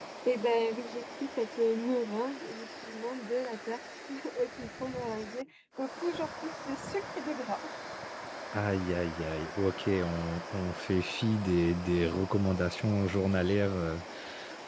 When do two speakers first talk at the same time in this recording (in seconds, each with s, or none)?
none